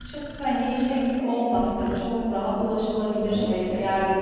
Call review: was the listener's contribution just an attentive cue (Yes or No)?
Yes